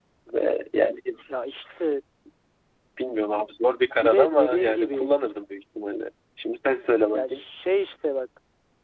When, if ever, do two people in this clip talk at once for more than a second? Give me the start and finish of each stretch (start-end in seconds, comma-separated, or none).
3.8-5.1